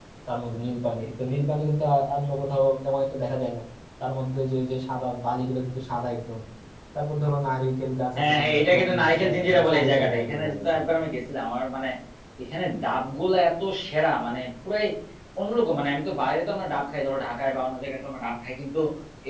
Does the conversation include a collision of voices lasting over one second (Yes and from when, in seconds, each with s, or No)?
Yes, from 8.2 s